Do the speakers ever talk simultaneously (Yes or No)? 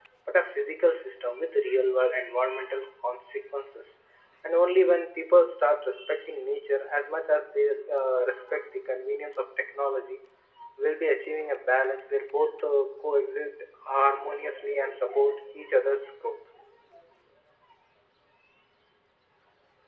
No